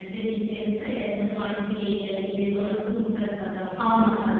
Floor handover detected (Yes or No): Yes